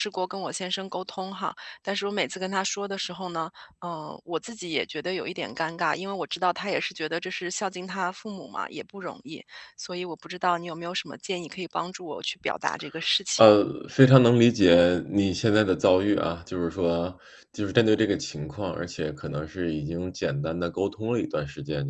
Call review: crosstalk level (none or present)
none